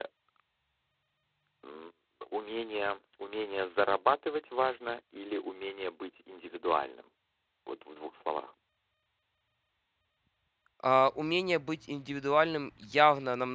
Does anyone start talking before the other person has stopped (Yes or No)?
No